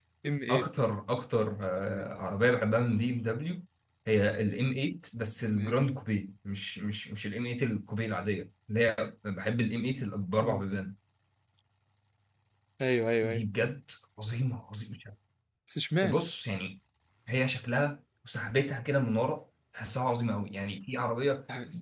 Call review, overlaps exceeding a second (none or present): none